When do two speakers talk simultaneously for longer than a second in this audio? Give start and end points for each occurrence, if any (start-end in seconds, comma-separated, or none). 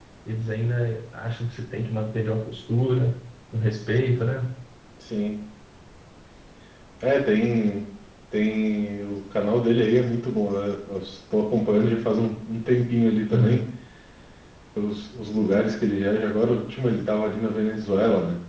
none